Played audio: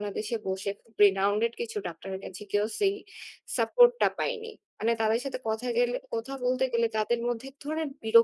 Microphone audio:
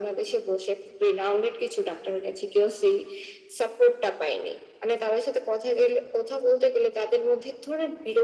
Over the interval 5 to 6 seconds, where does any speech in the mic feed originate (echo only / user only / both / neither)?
echo only